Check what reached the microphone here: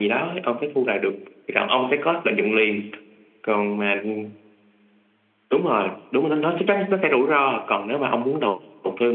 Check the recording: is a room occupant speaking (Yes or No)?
No